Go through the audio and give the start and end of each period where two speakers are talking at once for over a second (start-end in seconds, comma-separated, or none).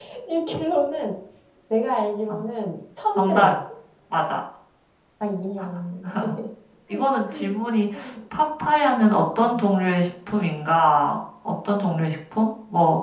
none